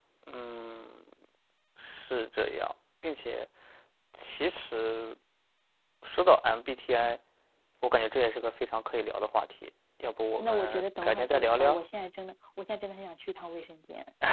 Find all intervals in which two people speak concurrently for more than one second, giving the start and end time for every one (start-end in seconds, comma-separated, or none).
10.4-11.8